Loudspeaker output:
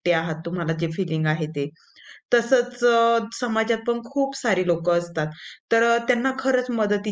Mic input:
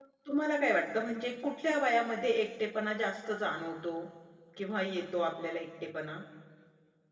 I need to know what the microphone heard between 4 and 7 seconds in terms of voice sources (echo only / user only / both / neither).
user only